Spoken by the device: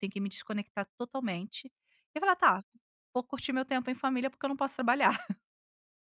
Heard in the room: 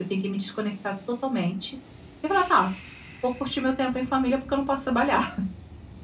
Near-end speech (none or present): none